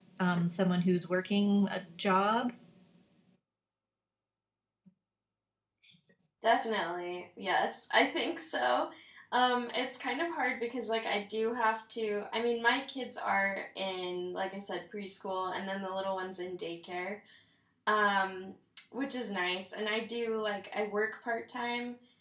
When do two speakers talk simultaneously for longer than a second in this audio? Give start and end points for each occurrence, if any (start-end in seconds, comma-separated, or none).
none